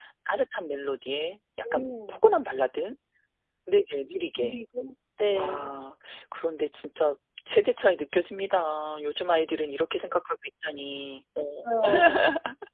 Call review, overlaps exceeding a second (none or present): none